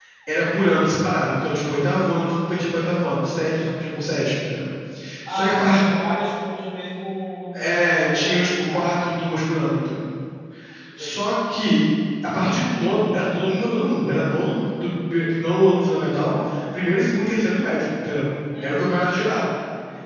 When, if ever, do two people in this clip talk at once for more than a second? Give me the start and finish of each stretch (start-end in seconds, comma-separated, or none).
7.5-8.9